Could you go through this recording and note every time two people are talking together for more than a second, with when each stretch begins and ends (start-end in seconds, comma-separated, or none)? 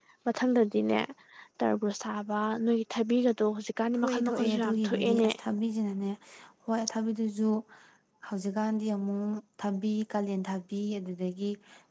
3.9-5.3